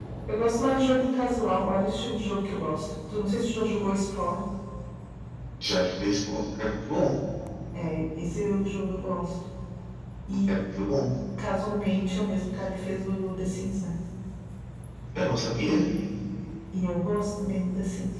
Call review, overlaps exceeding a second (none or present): none